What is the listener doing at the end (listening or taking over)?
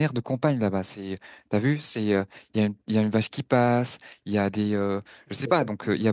listening